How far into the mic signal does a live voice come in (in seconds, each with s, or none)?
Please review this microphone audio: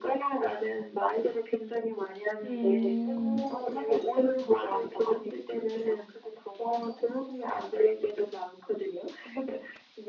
2.4 s